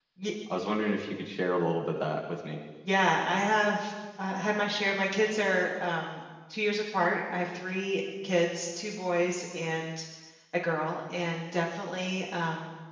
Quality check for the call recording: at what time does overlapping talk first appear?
none

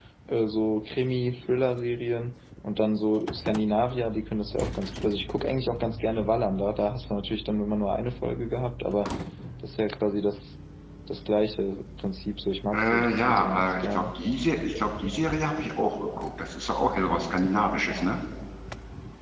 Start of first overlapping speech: 13 s

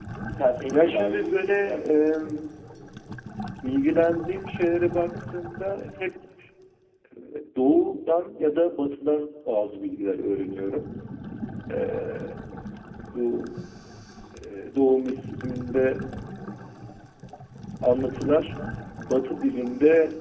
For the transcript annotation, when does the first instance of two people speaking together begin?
1 s

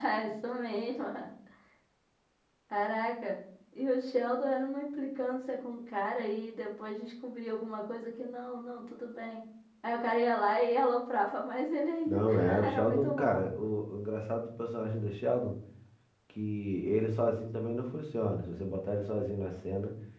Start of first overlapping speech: 12 s

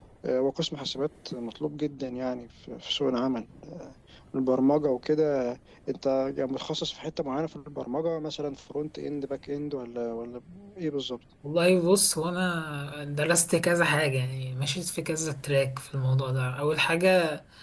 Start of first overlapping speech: none

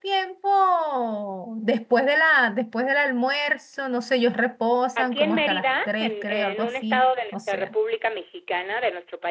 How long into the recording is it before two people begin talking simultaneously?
5 s

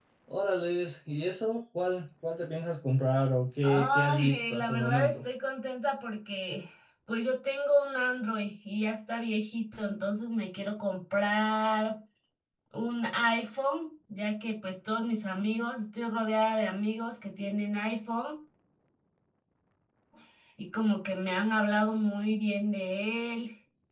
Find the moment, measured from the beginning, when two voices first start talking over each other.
4 s

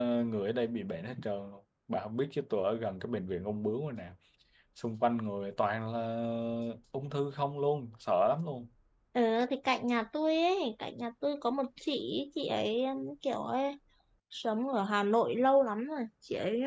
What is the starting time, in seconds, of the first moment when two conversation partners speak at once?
none

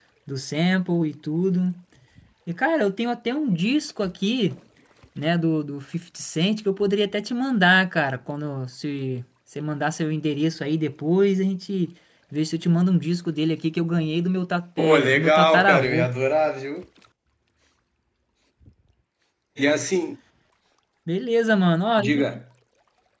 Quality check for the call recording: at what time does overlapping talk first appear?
15 s

